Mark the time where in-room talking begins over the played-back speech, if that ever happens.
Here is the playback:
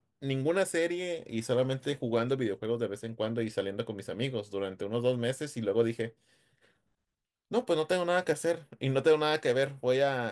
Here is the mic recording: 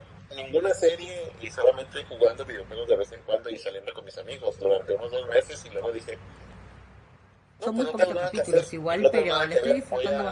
7.6 s

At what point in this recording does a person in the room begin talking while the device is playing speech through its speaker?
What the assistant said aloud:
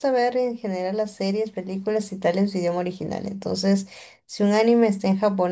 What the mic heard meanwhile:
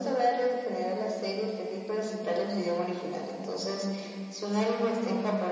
none

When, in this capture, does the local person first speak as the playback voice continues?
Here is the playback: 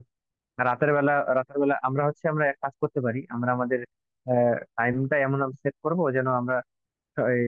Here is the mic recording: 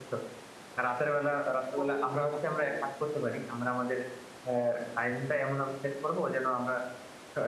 1.8 s

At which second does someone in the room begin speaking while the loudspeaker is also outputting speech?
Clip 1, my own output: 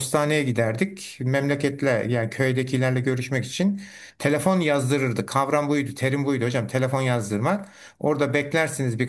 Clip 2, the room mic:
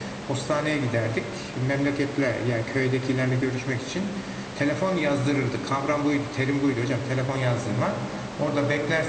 none

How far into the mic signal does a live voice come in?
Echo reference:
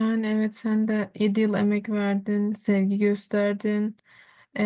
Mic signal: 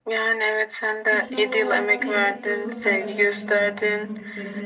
1.1 s

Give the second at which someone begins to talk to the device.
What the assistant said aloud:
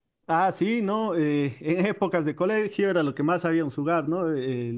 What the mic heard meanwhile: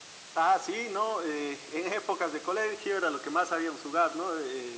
none

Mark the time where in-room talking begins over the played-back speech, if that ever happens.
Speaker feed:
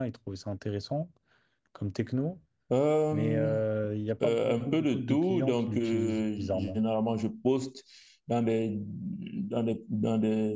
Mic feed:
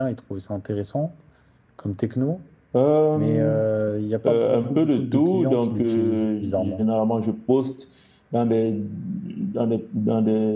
none

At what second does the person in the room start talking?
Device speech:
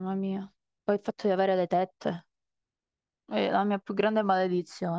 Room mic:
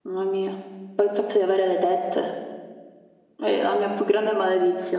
none

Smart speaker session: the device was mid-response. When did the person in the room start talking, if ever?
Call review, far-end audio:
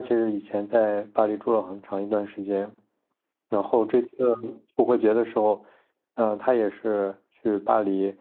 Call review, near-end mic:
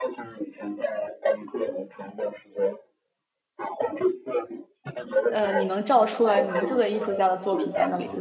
5.3 s

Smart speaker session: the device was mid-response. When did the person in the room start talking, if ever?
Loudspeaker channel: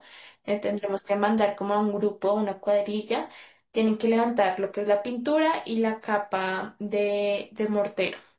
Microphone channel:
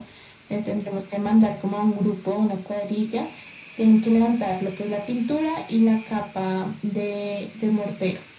none

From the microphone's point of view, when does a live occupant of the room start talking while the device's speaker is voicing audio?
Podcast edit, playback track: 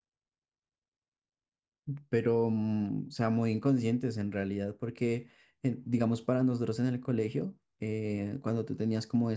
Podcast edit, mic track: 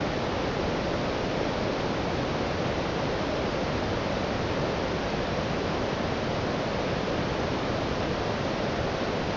none

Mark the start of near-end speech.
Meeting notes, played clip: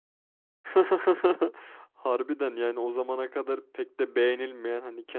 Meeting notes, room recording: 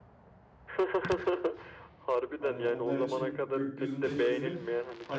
2.3 s

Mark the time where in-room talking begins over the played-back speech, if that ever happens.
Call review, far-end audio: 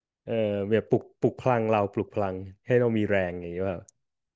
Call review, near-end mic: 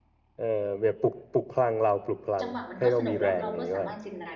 2.4 s

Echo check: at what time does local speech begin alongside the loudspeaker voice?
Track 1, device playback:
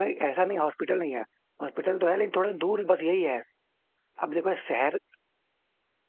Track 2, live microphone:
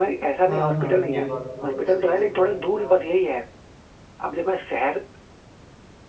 0.5 s

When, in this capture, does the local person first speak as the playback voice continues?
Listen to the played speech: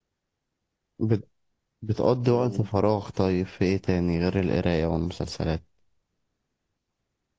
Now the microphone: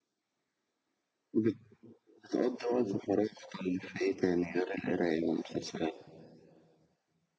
none

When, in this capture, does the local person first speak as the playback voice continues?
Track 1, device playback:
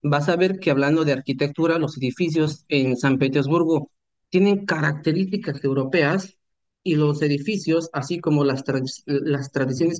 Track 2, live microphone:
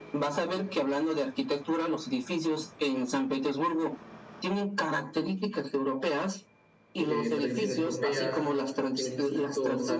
7.0 s

